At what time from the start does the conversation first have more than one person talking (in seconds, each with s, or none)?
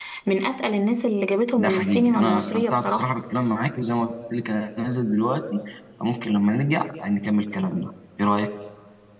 1.6 s